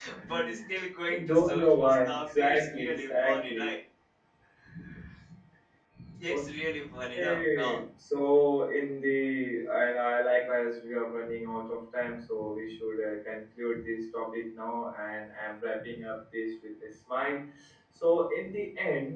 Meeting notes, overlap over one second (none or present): present